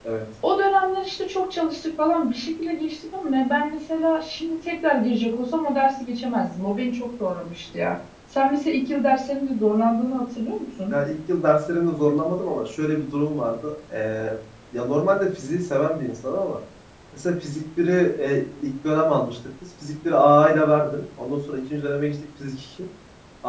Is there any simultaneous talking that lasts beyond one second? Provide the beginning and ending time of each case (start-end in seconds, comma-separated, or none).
none